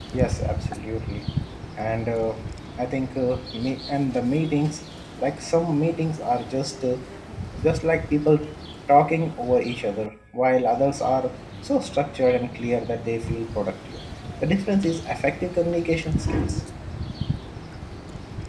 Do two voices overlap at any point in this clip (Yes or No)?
No